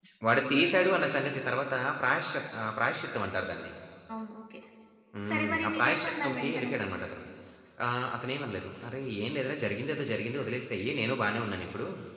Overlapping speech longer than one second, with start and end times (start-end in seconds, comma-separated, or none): 5.3-6.7